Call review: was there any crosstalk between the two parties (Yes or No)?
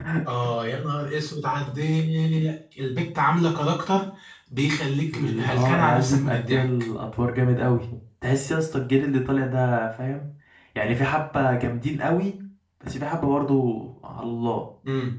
Yes